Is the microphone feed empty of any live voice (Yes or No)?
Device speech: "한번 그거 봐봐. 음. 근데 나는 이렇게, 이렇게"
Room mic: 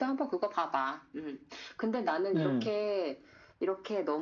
No